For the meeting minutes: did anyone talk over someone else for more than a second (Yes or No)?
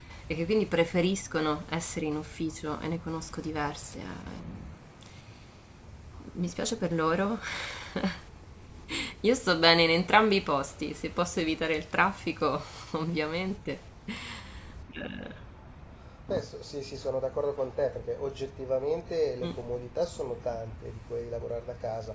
No